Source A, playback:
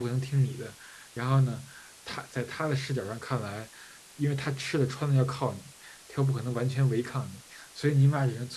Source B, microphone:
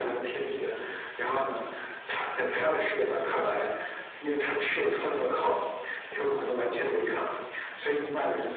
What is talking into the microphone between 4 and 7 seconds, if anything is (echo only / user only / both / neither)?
echo only